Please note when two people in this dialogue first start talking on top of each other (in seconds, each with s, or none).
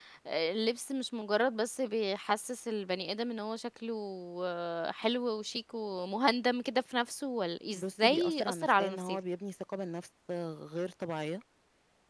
7.7 s